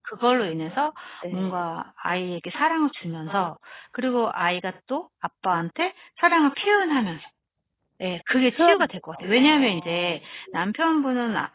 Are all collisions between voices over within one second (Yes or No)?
No